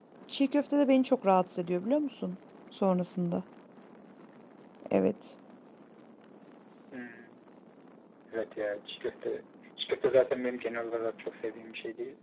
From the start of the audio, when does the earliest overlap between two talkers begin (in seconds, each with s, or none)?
none